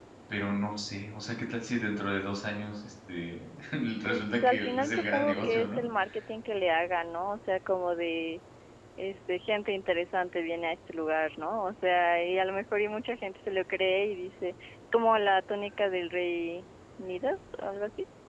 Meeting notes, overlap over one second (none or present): present